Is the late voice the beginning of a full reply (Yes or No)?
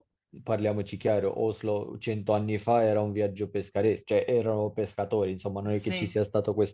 No